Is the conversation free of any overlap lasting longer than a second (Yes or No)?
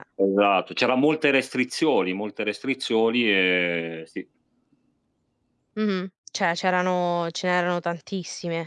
Yes